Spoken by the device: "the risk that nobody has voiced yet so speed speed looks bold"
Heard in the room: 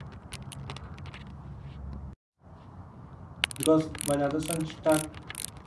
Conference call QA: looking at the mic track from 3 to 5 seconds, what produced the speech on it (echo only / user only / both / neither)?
user only